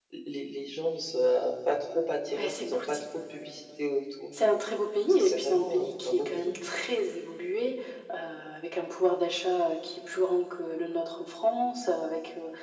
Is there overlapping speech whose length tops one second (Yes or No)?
Yes